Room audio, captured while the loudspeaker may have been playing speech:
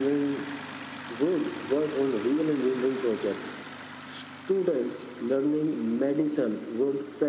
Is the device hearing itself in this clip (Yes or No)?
Yes